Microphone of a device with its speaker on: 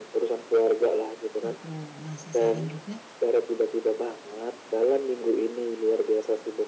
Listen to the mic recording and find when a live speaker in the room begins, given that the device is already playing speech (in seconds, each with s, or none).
1.5 s